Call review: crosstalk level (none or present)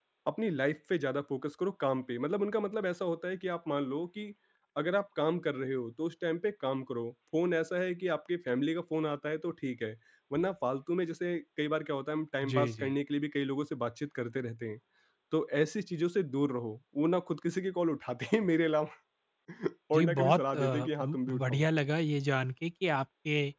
present